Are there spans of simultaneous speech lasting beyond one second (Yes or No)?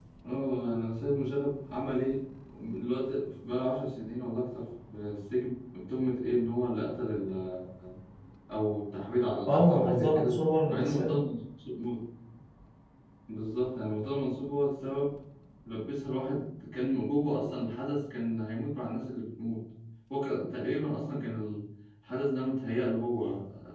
Yes